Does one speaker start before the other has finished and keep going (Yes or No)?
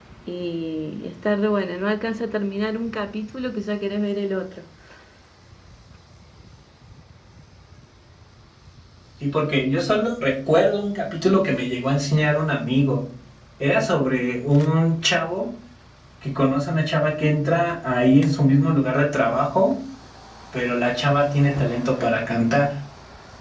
No